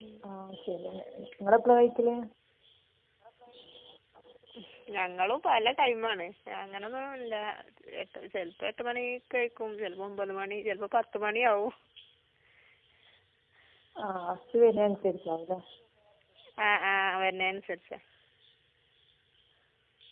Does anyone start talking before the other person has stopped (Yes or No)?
No